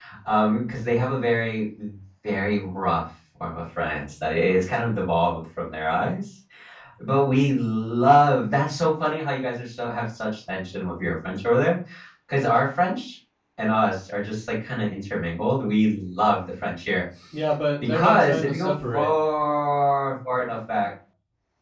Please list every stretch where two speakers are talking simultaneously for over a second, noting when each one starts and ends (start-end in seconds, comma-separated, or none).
17.8-19.1